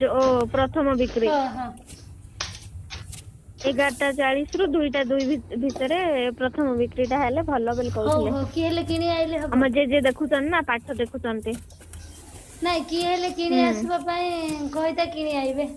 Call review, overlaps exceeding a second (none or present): none